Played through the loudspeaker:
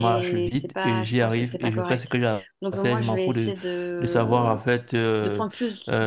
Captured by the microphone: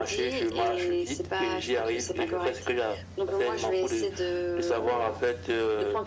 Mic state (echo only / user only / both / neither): echo only